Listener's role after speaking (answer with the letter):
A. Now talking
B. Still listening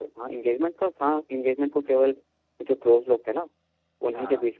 B